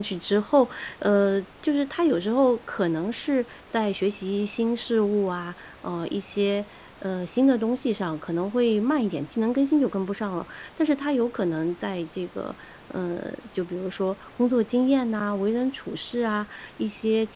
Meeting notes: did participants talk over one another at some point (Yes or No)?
No